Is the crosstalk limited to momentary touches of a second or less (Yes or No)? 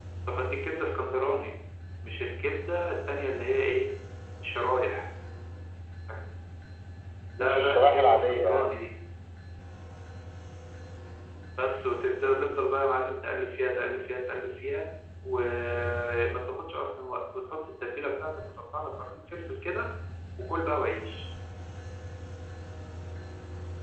No